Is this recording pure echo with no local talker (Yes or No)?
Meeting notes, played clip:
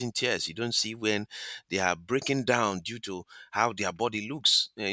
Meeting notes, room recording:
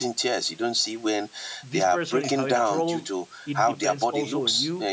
No